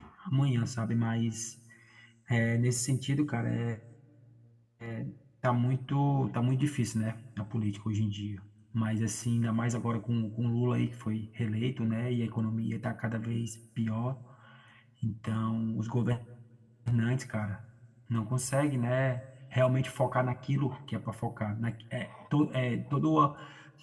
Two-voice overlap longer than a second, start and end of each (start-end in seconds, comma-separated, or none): none